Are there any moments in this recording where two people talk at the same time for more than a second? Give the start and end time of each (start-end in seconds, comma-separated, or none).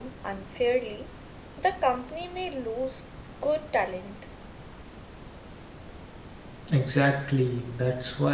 none